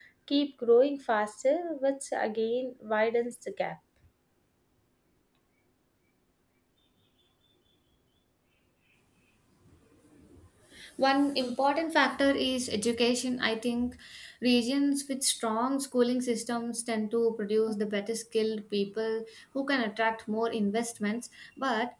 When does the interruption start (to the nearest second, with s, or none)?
none